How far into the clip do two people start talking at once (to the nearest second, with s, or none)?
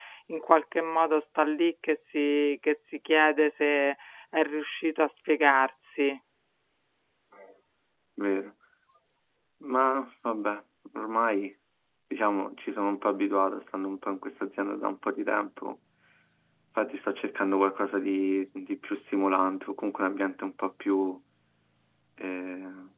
none